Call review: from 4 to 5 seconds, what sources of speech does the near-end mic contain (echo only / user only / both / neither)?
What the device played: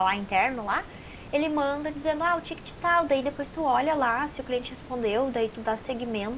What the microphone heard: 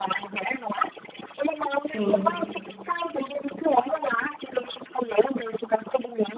echo only